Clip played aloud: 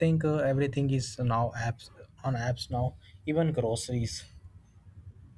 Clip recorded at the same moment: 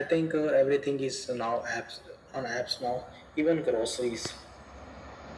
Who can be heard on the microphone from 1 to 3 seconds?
echo only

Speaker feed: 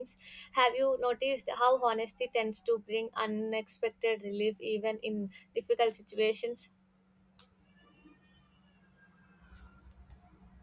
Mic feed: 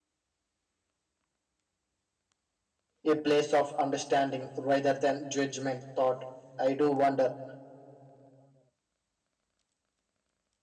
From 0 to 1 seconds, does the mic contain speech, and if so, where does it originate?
neither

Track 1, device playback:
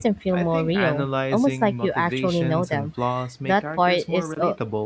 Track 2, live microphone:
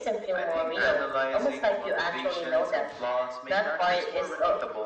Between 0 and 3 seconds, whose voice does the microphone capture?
echo only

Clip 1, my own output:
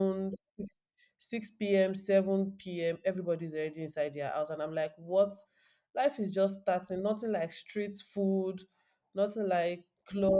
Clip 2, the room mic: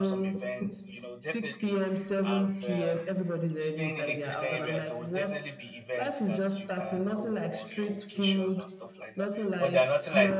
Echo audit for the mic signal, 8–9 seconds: both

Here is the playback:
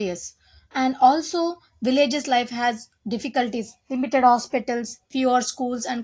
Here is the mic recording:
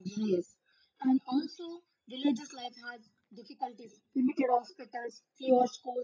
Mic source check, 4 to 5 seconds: echo only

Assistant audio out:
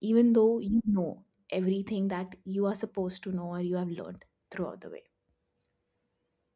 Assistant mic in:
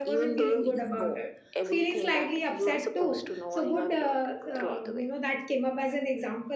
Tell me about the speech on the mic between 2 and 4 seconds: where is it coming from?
both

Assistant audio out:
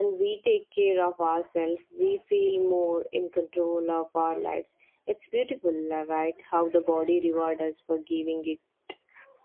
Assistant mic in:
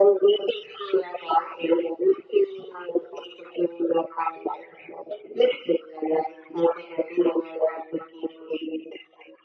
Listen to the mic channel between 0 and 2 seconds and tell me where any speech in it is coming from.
echo only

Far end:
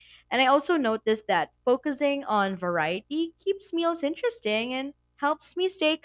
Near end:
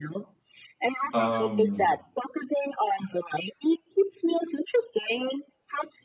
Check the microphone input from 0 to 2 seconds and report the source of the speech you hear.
both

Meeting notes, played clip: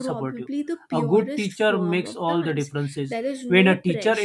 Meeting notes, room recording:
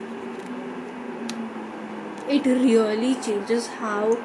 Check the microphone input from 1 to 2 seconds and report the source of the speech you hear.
neither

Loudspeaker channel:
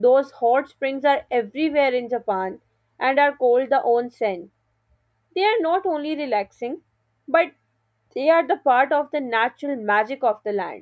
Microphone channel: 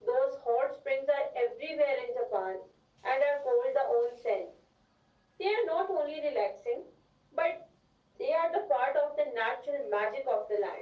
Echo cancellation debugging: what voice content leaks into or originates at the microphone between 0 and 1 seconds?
echo only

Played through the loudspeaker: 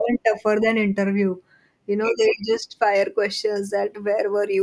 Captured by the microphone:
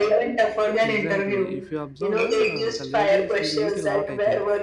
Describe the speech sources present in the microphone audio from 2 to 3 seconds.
both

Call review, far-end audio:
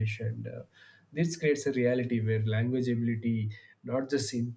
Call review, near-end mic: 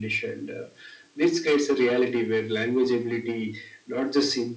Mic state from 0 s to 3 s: echo only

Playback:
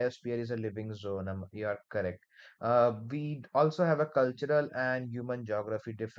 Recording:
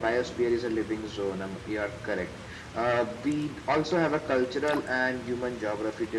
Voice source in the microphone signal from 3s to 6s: echo only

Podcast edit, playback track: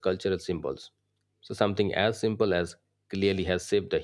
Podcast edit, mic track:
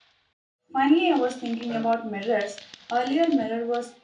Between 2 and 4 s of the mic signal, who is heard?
user only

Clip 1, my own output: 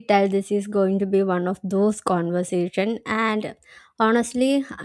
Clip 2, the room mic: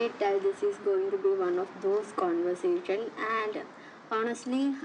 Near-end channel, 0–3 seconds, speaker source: echo only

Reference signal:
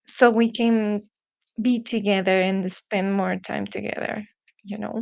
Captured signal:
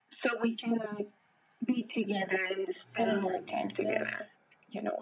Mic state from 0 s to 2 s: echo only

